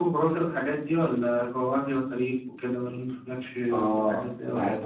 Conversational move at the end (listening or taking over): taking over